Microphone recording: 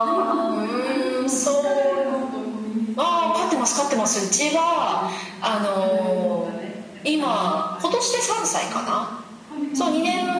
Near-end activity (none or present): present